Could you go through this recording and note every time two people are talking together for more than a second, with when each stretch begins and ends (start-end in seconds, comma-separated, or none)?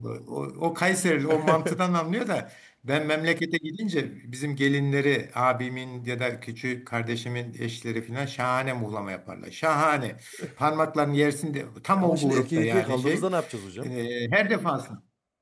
11.9-13.3